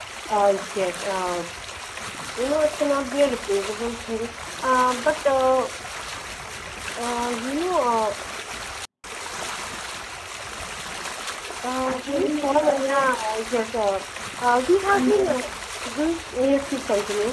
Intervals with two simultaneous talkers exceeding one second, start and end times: 11.8-13.2

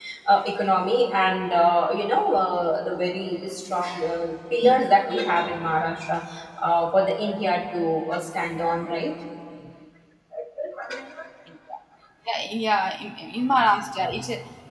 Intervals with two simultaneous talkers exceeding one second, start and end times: none

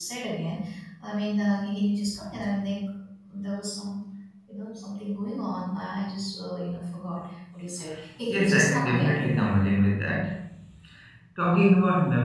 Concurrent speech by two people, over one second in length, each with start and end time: 8.3-9.5

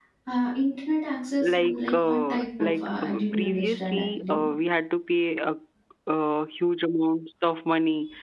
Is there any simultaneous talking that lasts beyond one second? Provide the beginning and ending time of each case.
1.4-4.4

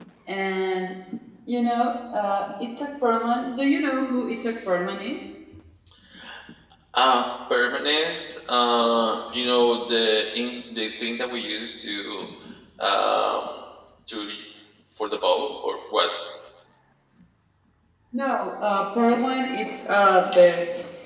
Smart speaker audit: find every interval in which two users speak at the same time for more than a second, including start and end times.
none

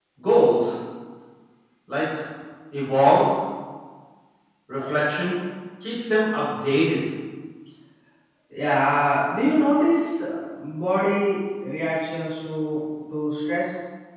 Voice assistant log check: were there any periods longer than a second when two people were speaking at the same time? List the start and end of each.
none

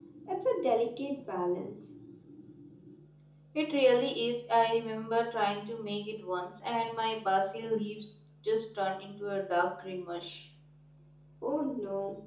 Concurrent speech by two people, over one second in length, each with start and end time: none

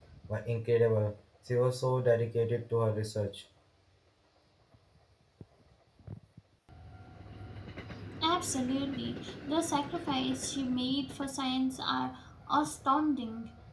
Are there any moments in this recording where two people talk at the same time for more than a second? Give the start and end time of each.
none

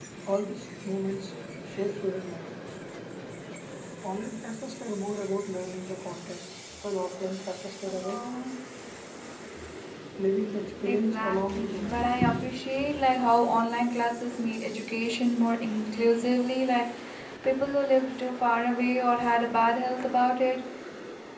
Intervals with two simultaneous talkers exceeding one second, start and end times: 10.9-12.2

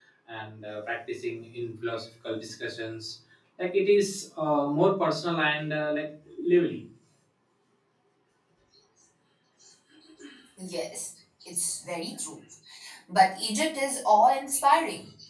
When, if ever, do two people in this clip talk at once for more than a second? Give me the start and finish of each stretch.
none

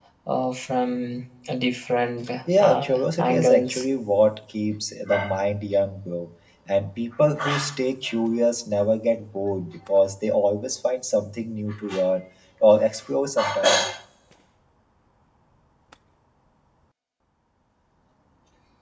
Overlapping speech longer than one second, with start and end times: 2.6-3.9

